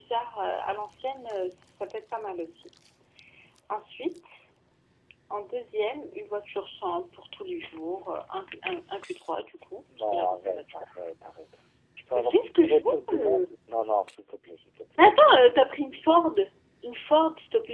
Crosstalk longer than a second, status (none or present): present